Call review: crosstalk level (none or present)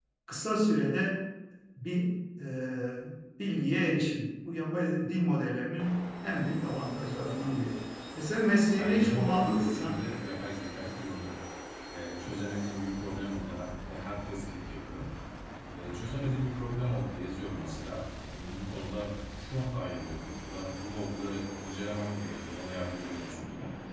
present